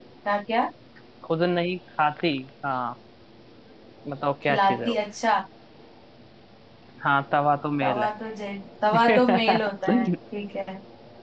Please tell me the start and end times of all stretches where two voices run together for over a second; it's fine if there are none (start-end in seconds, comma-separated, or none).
8.9-10.1